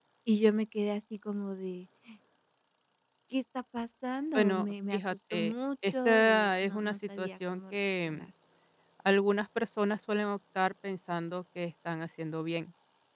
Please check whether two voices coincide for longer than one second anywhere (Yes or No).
Yes